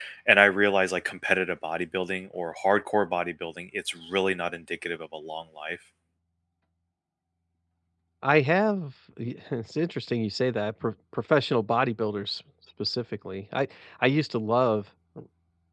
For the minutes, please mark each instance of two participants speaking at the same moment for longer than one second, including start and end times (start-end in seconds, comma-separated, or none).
none